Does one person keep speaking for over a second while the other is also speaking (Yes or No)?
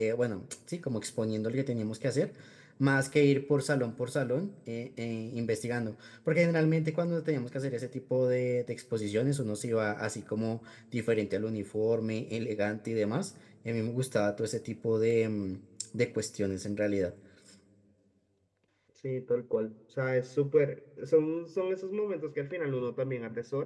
No